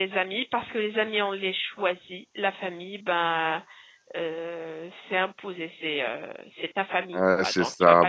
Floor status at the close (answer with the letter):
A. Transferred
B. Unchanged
A